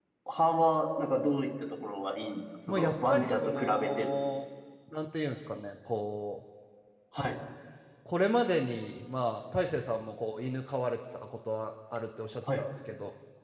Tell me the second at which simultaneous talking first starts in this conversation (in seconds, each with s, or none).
2.7 s